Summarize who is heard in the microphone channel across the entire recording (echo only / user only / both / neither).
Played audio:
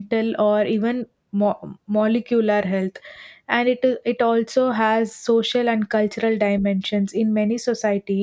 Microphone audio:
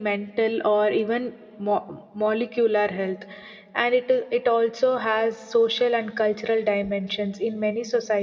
echo only